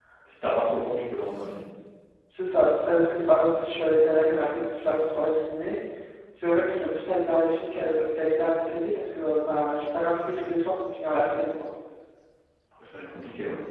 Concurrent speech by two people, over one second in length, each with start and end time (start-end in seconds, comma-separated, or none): none